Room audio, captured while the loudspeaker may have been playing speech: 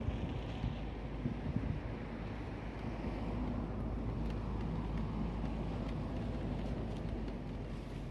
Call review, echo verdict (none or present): none